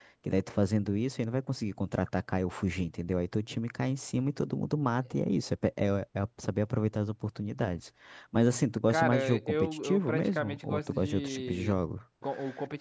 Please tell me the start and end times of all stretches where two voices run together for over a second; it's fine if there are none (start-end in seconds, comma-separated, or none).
8.9-11.8